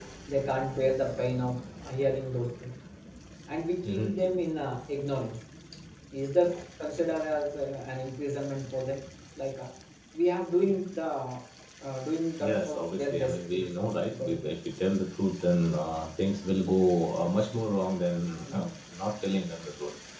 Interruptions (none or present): present